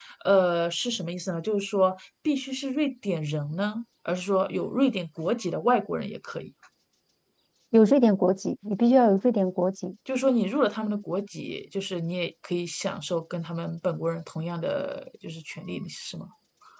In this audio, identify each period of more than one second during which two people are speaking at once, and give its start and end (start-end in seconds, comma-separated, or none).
none